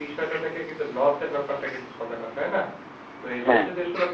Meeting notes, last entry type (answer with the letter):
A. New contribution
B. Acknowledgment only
B